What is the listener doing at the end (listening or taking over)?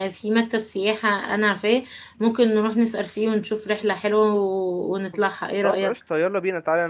taking over